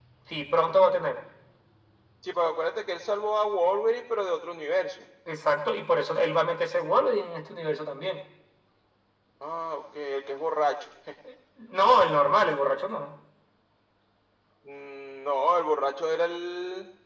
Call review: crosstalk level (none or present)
none